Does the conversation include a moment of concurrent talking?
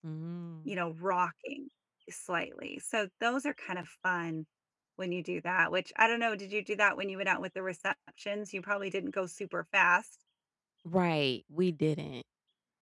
No

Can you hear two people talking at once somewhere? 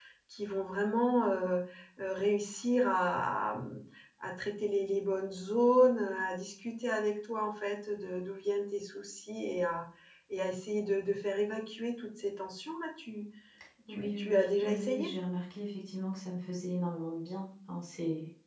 Yes, from 13.9 s

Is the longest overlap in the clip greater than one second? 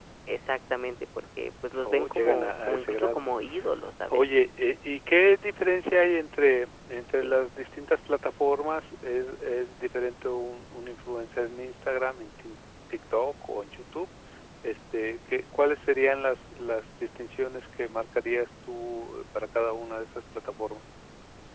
Yes, from 1.8 s

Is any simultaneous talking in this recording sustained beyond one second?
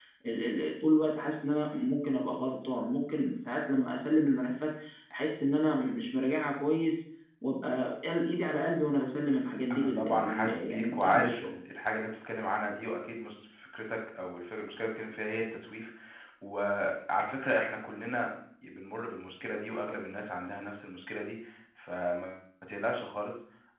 Yes, from 9.7 s

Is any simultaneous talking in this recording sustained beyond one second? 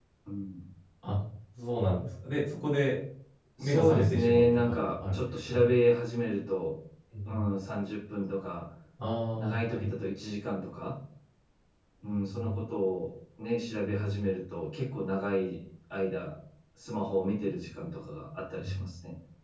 Yes, from 3.6 s

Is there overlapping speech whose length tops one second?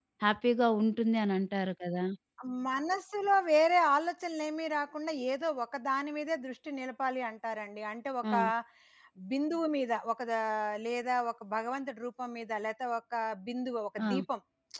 No

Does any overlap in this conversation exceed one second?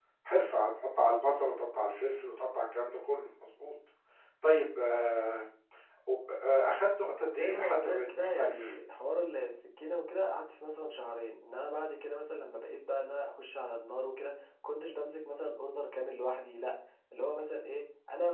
Yes, from 7.4 s

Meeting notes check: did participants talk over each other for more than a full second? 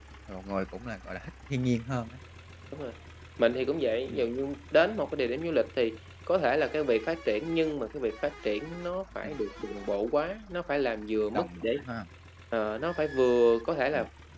No

